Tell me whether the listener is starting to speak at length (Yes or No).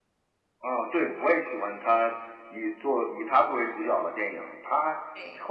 No